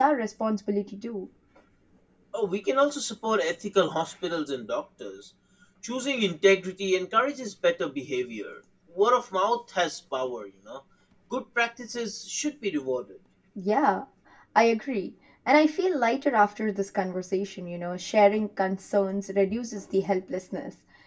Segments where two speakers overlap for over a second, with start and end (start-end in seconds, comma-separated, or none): none